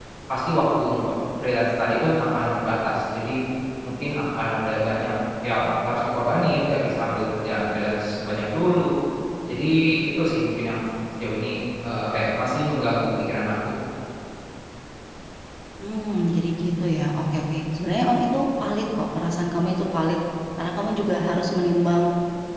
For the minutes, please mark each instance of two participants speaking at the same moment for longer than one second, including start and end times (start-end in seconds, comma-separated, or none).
none